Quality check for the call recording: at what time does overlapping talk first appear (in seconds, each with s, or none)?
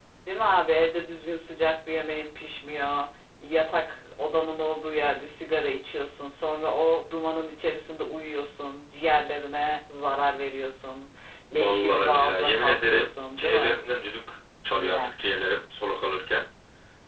11.5 s